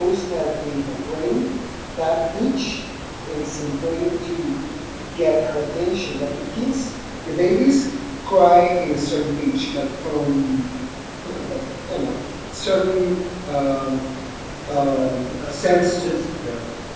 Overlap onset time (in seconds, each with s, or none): 14.7 s